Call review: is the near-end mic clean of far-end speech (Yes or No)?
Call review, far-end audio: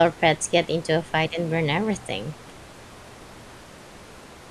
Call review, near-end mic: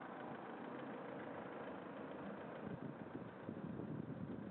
Yes